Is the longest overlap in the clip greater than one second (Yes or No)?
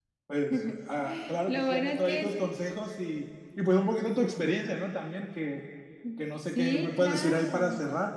Yes